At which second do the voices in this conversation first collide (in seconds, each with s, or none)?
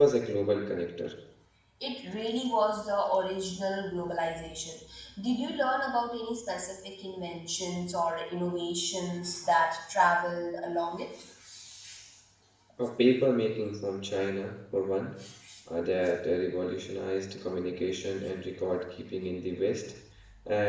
none